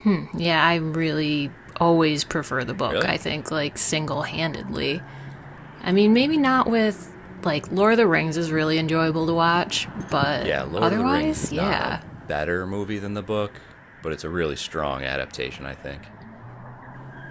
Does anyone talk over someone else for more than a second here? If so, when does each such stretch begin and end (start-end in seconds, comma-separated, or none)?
10.4-12.0